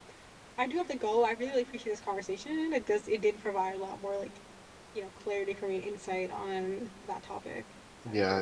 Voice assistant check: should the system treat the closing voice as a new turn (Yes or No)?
Yes